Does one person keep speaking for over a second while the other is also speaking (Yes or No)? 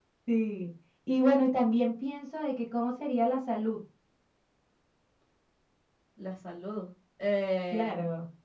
No